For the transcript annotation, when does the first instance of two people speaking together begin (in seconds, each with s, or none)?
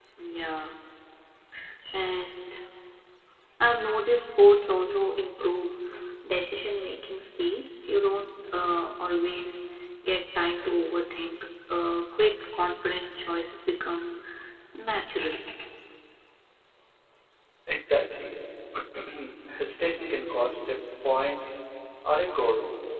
none